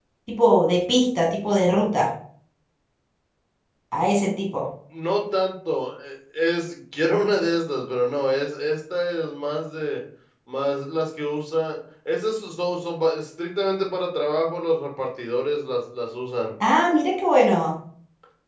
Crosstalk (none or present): none